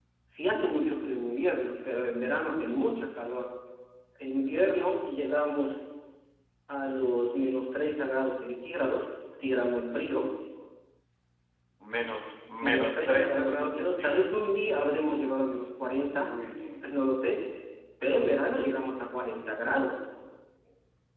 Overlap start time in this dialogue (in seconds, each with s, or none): 12.6 s